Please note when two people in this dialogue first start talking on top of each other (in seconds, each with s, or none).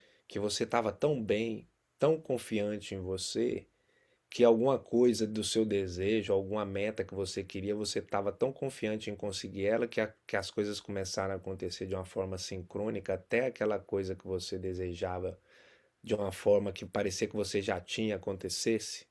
none